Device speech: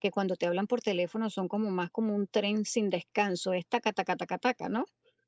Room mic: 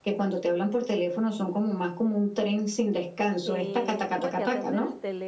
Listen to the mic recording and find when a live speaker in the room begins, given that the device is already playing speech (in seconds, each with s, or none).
3.4 s